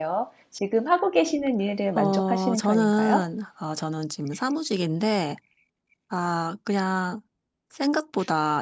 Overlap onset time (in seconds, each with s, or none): 2.0 s